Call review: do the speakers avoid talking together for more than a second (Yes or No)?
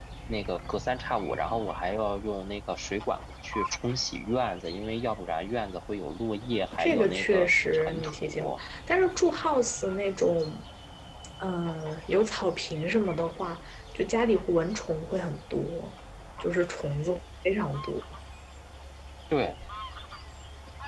No